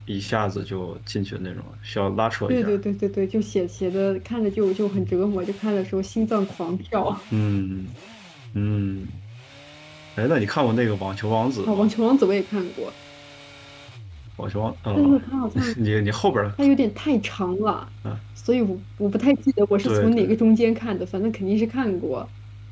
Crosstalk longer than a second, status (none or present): none